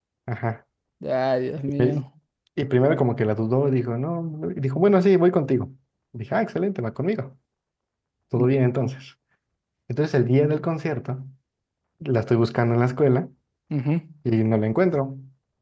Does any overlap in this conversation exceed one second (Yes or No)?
No